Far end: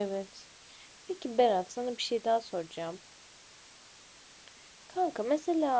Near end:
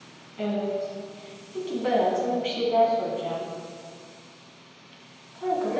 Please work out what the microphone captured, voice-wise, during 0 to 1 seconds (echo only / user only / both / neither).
echo only